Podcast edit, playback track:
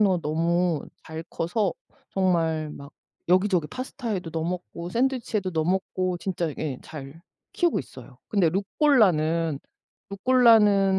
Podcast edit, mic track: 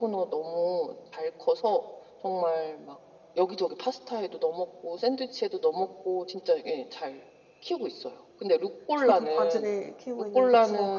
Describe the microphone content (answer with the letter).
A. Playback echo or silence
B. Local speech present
B